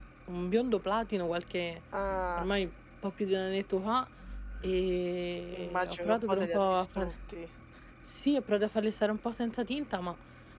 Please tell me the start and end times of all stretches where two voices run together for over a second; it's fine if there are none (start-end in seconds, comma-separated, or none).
5.5-7.1